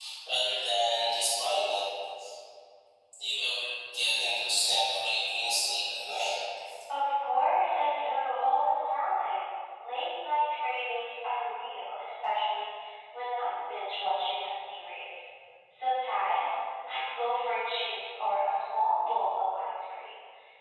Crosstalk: none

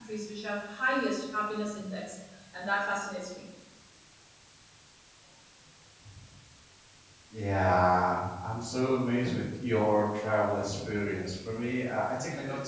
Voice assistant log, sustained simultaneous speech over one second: none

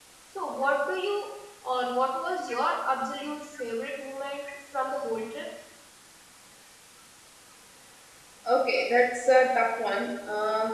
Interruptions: none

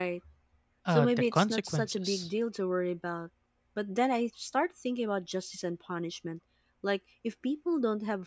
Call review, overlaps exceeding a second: present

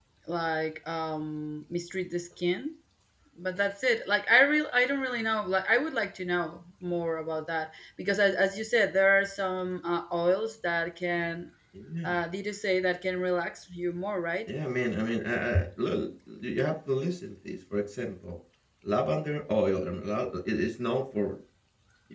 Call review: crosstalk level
none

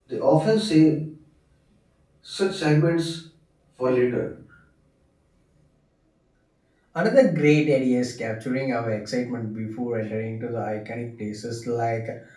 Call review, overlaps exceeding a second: none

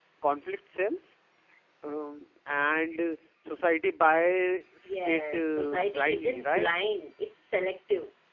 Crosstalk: present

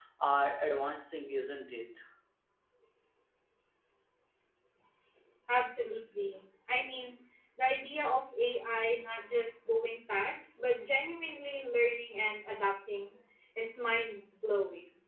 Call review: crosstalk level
none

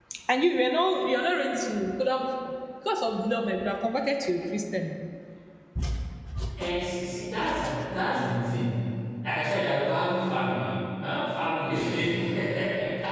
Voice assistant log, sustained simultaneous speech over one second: none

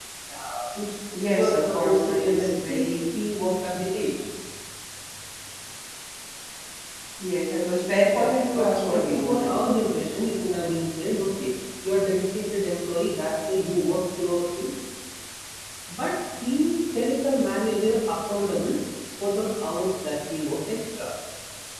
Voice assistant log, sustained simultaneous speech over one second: present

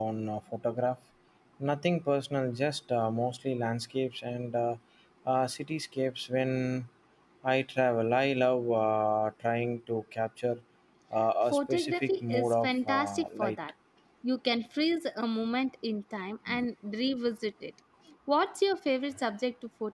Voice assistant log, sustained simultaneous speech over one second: present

